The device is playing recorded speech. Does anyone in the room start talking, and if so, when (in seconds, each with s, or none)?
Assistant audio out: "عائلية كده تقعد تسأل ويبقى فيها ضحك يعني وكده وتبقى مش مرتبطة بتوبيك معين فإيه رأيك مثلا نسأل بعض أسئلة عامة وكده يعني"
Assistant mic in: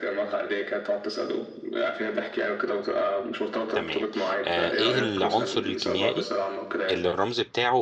3.7 s